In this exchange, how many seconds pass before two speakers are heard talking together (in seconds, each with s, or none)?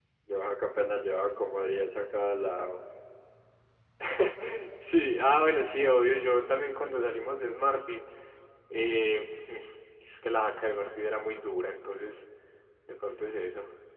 none